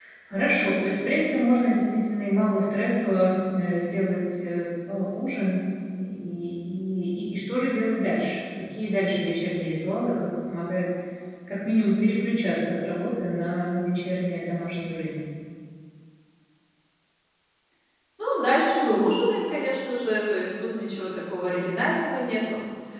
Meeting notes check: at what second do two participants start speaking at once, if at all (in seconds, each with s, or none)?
none